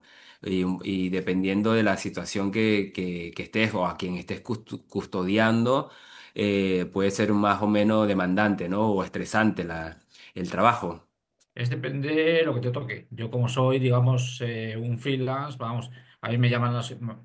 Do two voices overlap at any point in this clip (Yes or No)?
No